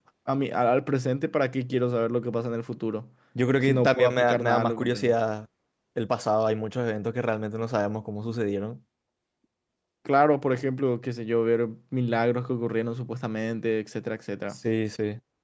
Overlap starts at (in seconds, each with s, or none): 3.7 s